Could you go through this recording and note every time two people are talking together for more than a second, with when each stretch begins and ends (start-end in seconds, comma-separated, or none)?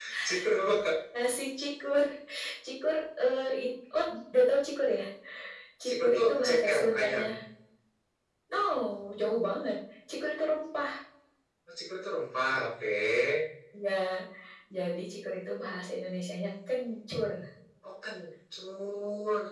5.8-7.2